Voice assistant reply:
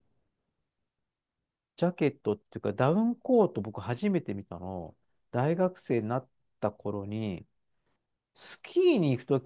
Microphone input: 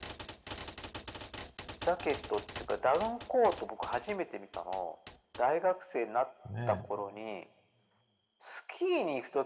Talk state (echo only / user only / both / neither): both